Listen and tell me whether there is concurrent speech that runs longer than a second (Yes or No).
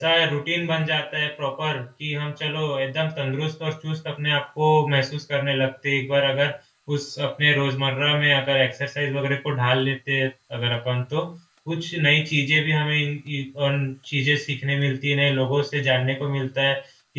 No